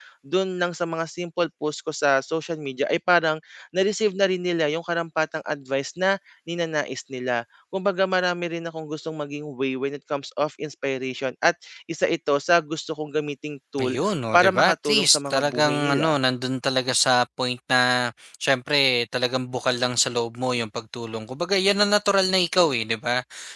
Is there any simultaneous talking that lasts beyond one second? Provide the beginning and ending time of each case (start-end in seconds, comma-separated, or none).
14.3-16.2